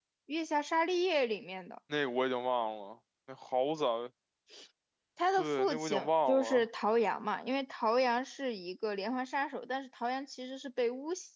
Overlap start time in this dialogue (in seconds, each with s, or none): 5.3 s